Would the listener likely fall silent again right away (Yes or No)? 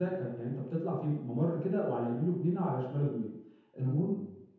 Yes